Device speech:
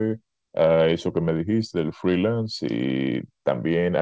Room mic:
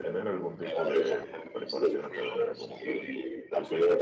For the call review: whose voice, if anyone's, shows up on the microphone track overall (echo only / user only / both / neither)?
both